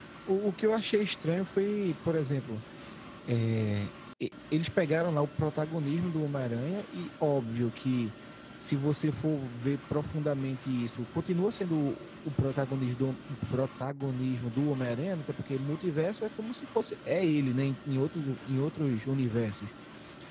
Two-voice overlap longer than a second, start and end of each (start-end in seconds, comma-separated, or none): none